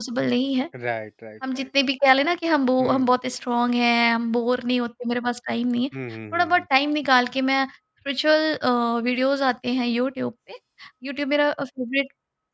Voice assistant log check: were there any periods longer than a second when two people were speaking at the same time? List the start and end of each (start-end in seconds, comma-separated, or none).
none